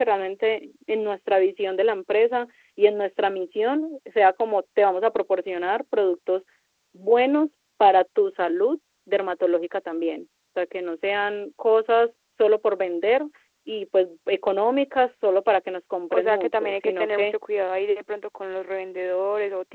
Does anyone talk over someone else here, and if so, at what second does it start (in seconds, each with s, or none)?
16.1 s